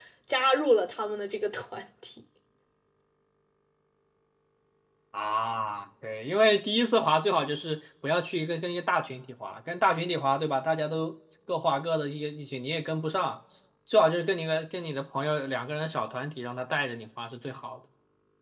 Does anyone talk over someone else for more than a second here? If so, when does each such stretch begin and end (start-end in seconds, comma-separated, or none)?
none